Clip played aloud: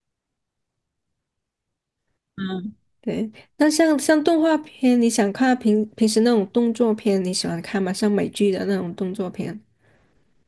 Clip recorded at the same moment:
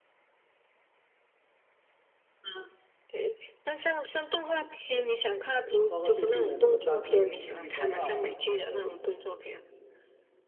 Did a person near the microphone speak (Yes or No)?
Yes